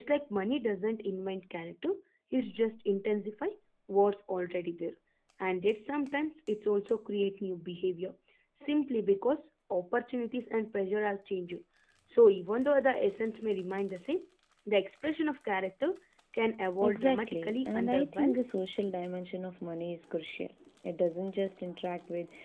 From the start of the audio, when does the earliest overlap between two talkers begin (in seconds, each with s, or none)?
16.8 s